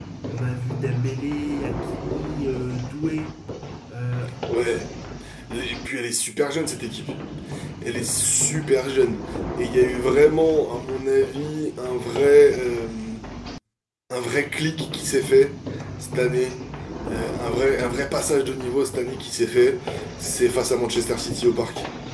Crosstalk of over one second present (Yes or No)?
No